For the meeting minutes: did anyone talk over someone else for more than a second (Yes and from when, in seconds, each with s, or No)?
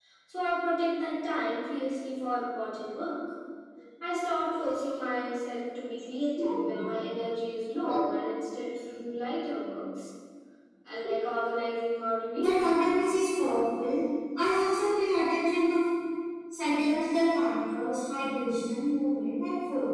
No